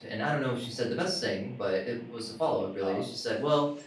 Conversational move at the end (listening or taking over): listening